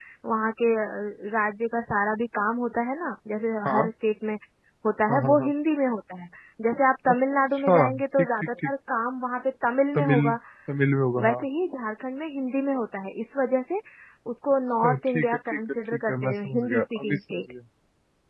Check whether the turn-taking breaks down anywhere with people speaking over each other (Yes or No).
Yes